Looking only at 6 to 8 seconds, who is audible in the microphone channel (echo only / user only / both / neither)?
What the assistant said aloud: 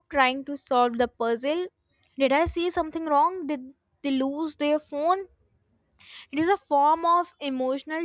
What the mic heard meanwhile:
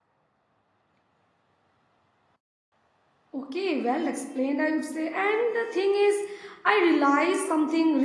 user only